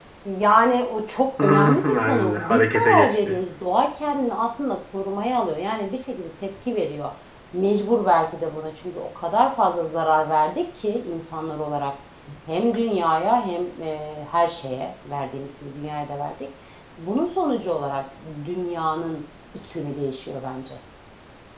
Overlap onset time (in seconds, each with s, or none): 1.4 s